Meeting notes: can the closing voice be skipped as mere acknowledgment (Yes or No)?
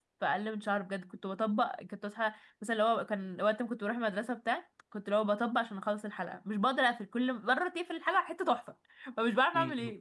No